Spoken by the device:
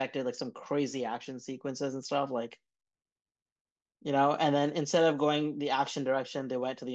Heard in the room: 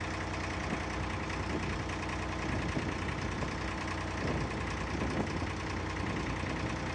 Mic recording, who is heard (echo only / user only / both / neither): neither